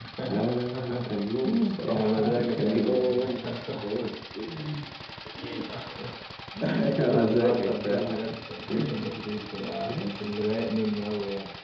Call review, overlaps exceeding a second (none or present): present